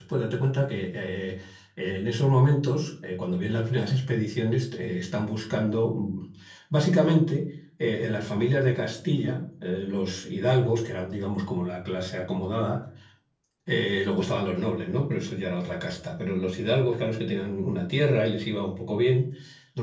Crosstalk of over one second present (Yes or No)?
No